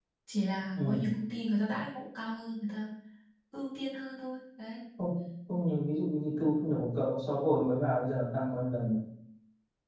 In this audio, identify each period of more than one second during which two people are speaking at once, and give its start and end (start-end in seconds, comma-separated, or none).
none